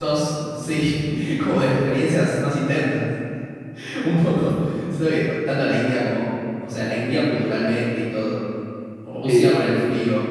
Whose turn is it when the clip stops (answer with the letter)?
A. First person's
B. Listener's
A